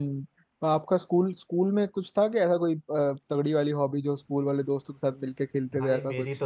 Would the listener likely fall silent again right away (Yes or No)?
No